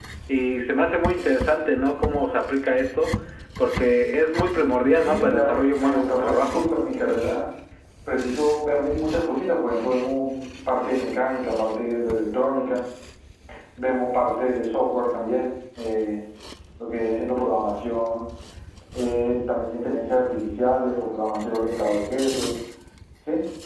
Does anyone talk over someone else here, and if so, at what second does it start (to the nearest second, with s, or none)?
5 s